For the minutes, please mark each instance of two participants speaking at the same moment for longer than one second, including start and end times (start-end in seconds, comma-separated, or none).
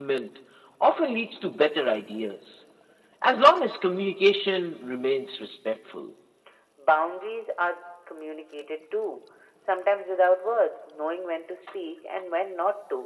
none